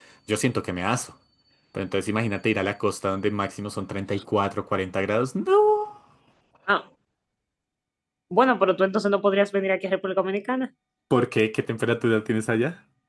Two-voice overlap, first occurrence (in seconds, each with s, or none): none